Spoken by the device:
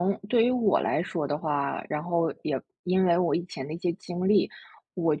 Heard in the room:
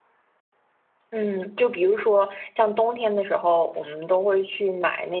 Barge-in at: 1.1 s

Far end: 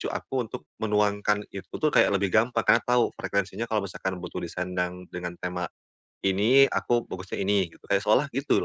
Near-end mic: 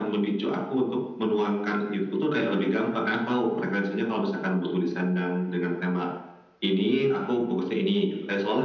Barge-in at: none

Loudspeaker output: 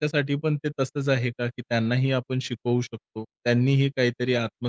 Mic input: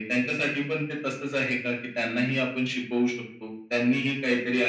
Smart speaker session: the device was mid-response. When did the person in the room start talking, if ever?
none

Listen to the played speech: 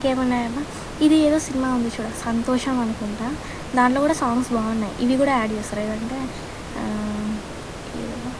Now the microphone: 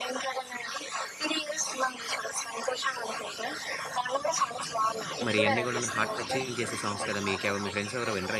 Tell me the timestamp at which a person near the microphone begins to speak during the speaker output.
5.2 s

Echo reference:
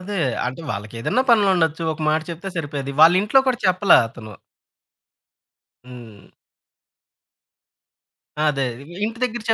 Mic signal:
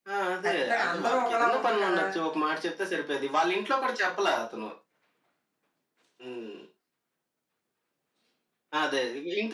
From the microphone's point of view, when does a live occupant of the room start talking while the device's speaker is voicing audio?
0.5 s

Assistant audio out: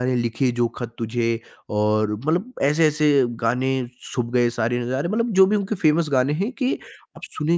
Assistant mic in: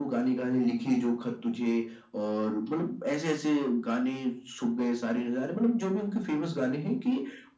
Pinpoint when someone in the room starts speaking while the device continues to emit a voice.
none

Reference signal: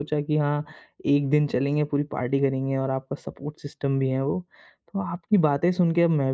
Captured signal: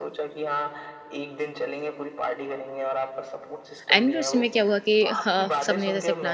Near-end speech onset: 3.9 s

